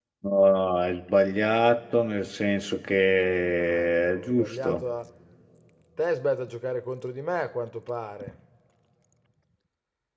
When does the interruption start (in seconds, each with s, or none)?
3.6 s